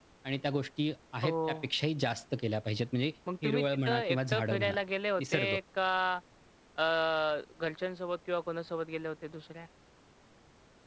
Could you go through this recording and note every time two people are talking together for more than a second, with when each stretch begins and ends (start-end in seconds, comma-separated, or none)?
3.4-4.8